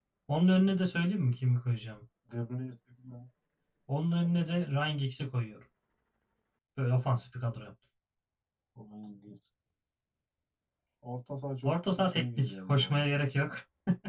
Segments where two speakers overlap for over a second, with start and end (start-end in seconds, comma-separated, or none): 11.6-13.1